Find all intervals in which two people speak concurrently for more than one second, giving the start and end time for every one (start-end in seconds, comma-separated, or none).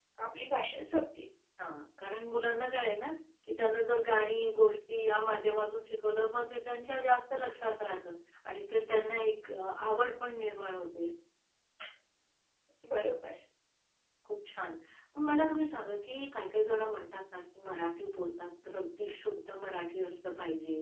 none